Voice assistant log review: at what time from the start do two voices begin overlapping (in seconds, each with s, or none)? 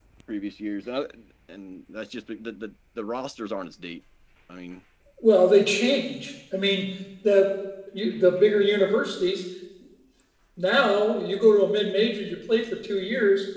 none